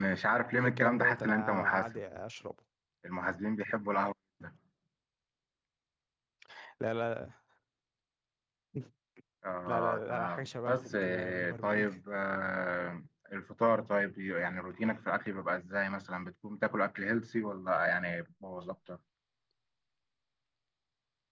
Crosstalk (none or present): present